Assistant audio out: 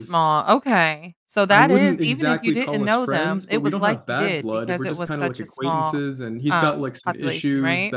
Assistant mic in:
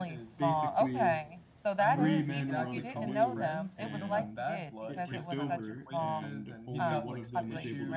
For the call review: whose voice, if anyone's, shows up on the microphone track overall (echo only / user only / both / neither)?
both